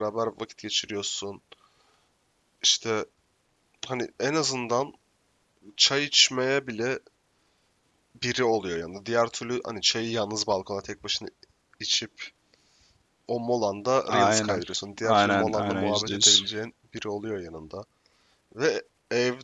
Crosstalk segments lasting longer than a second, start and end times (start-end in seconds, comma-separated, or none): 15.0-16.4